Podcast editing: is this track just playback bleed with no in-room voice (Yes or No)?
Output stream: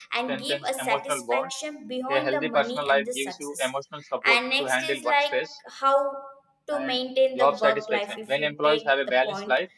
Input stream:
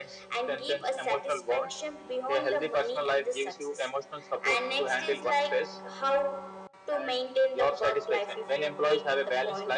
Yes